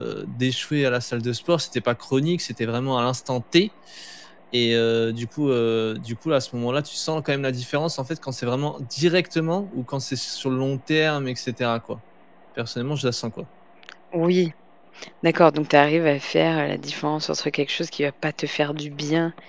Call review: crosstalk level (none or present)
none